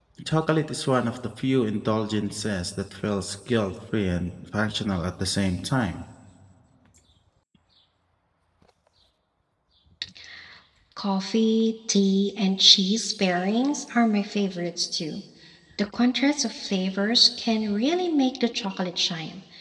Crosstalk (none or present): none